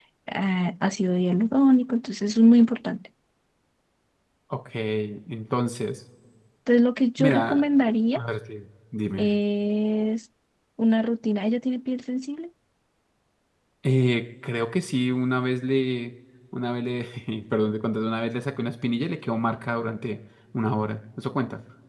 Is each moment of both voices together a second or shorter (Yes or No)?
Yes